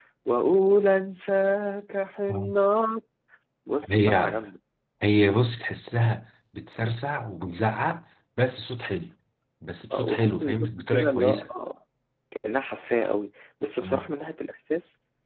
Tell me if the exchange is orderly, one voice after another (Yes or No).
No